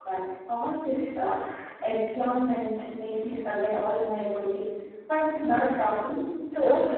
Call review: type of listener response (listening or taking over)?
taking over